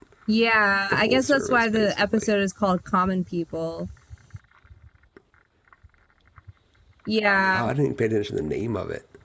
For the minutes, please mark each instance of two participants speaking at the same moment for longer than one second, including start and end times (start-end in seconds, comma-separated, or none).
0.9-2.3